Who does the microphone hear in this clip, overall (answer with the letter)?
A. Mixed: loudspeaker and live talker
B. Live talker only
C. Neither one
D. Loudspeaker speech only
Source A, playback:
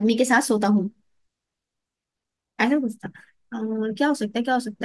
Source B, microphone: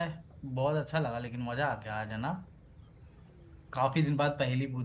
B